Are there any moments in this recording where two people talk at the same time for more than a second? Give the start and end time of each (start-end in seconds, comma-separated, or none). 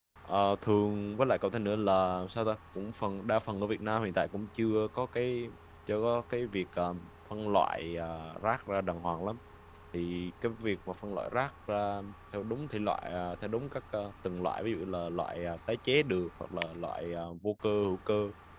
none